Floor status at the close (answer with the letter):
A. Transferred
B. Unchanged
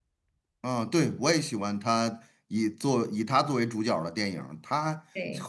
B